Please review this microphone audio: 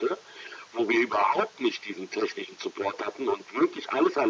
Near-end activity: none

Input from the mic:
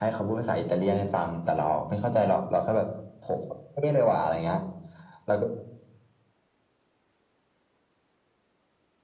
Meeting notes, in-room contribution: none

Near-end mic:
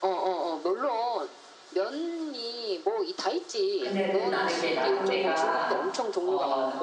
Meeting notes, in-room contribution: present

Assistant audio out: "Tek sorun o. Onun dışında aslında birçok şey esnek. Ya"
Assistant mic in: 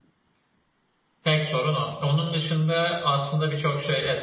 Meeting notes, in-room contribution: none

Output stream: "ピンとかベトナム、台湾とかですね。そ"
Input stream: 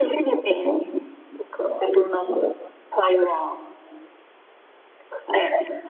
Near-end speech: none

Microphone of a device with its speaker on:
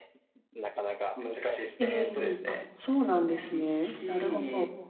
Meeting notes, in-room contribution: present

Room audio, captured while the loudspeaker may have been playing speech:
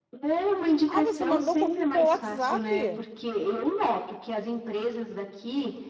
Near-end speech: present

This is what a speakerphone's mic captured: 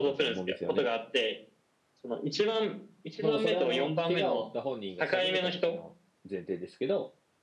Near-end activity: present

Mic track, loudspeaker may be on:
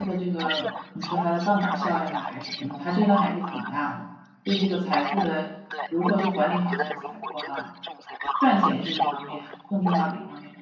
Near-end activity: present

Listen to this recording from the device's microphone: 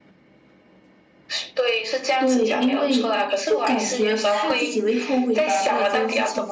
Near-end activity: present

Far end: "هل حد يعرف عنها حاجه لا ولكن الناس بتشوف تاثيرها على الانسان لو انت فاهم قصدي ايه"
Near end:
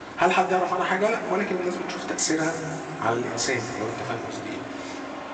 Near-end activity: none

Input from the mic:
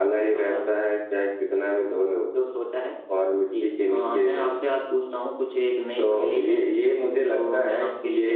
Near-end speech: none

